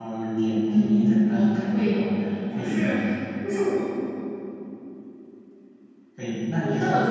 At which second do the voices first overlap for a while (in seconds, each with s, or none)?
0.6 s